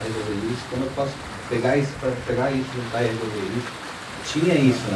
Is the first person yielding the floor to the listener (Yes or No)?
No